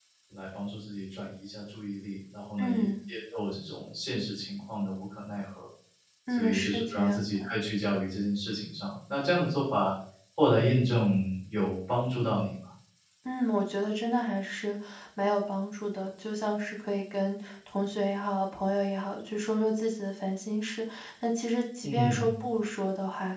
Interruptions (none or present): present